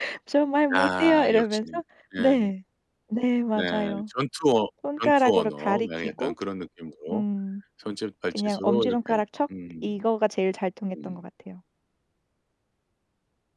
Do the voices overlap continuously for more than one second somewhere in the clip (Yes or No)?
Yes